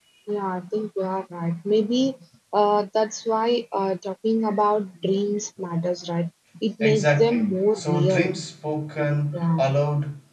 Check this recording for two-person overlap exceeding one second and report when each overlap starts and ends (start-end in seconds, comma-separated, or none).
6.8-8.3